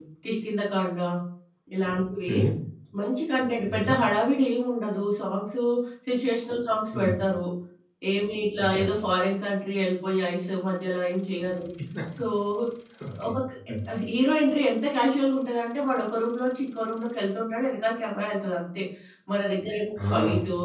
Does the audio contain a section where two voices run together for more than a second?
No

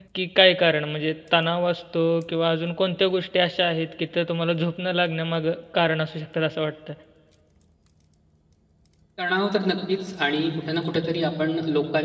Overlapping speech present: No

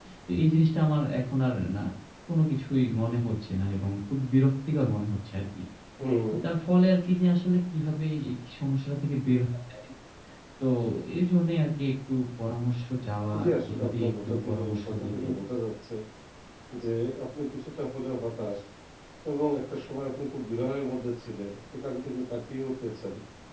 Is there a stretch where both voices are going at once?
Yes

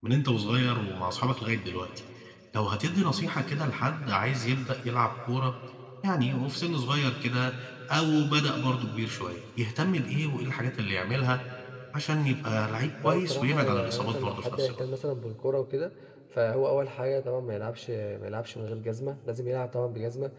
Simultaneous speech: Yes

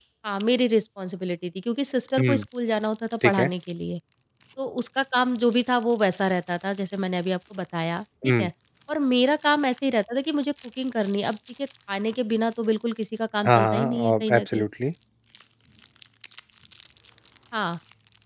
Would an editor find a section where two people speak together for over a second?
Yes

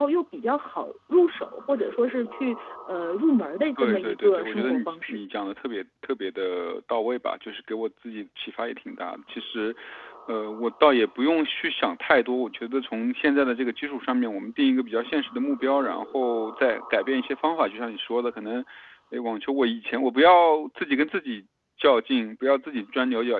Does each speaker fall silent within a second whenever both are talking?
No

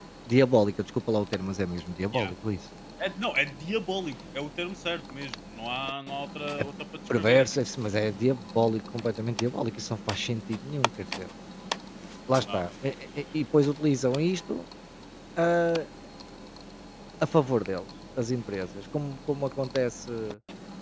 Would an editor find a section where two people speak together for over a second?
No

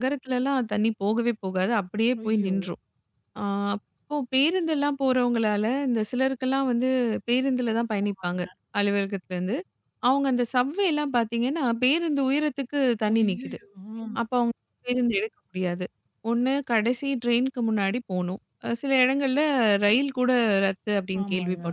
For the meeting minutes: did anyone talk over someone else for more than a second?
No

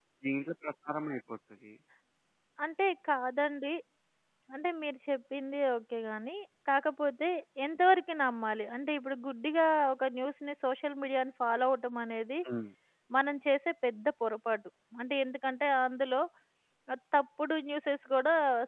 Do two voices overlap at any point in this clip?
No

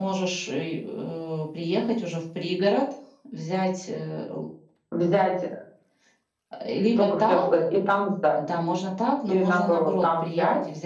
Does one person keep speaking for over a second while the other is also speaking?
Yes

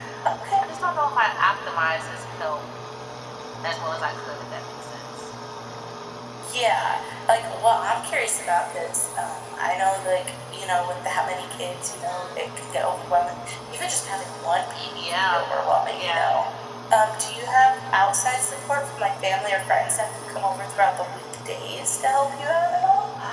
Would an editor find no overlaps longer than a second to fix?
Yes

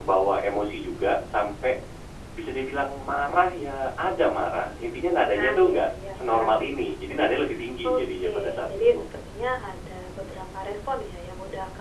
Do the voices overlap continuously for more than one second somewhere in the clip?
Yes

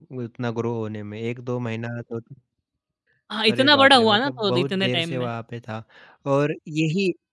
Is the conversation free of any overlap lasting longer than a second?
No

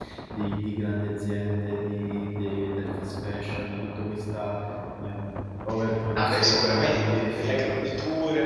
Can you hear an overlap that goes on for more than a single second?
Yes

